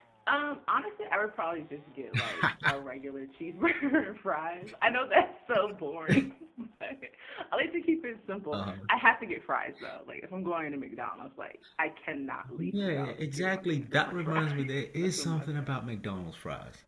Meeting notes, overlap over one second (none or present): present